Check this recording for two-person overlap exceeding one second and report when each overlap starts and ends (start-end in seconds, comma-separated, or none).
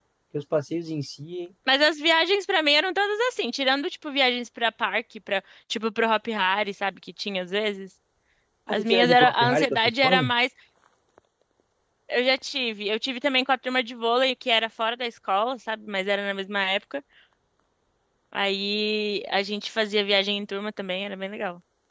8.7-10.3